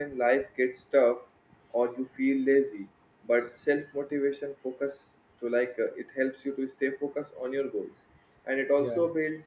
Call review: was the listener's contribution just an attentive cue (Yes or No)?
Yes